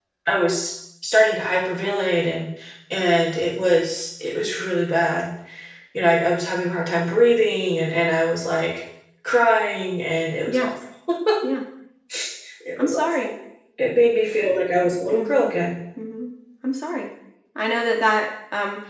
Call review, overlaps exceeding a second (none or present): none